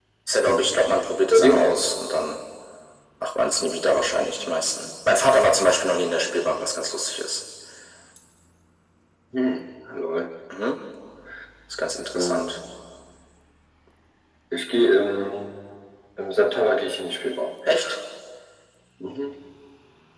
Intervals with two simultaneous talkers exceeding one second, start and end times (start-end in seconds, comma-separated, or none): none